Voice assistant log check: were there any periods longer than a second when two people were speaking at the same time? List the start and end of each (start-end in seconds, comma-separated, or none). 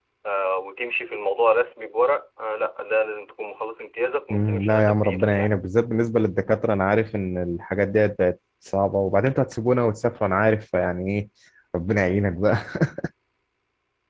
4.3-5.6